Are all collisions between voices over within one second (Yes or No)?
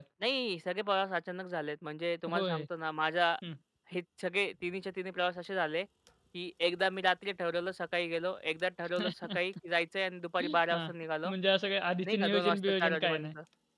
No